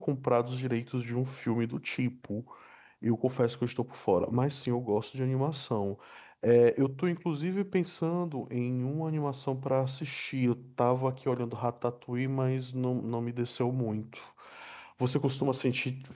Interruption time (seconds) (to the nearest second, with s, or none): none